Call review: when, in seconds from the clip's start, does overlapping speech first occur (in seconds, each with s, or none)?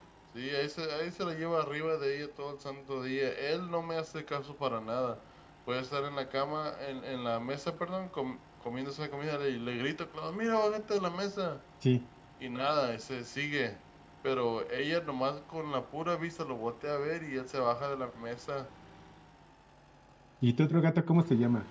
none